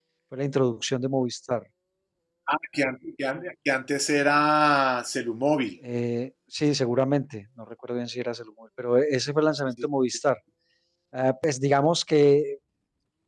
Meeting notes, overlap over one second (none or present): none